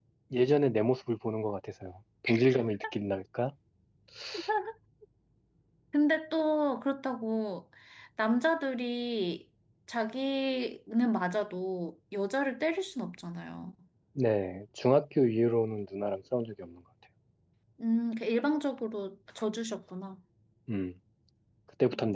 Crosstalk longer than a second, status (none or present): none